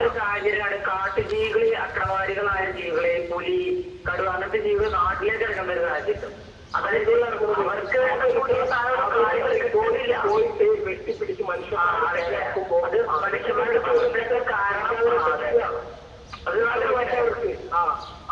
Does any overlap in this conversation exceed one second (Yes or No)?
Yes